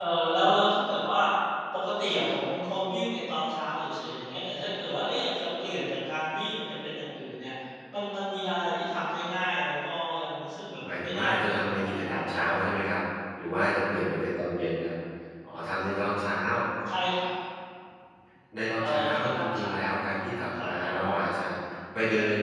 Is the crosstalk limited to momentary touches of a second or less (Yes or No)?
No